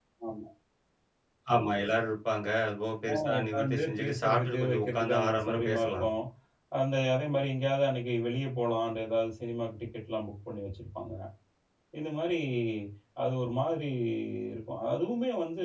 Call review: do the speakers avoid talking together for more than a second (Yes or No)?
No